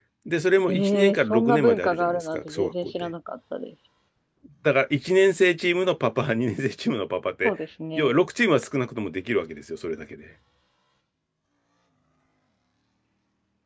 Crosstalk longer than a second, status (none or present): present